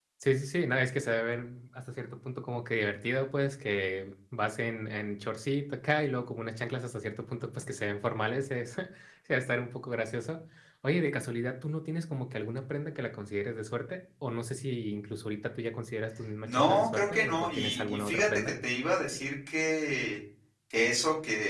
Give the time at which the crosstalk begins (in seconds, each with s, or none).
16.4 s